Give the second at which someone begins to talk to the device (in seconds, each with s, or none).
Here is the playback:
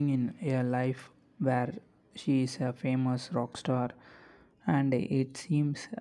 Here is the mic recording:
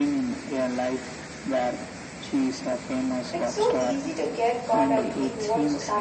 3.3 s